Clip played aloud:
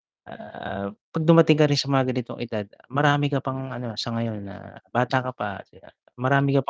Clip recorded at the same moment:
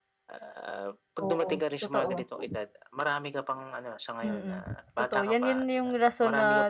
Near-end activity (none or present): present